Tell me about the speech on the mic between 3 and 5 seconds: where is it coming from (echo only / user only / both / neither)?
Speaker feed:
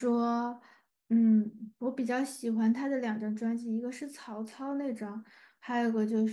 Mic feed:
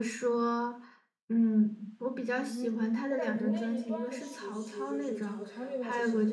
both